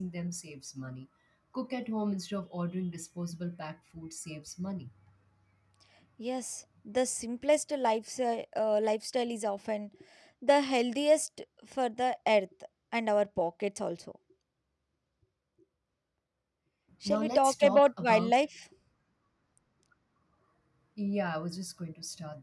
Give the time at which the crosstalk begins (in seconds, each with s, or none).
17.0 s